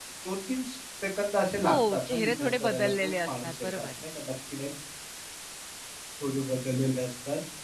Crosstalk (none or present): present